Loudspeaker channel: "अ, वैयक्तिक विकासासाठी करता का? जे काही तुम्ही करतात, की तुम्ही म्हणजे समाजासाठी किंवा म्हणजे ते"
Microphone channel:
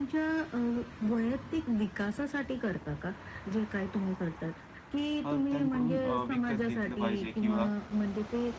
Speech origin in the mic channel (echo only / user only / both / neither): both